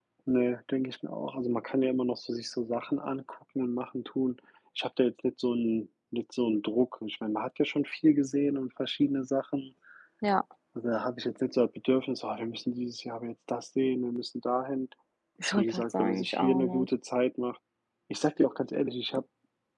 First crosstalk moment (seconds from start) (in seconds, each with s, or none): 15.5 s